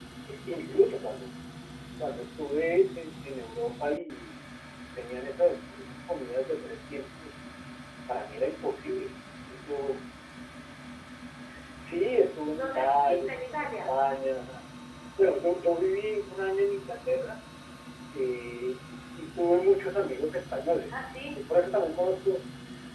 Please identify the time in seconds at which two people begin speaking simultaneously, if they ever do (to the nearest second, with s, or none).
13 s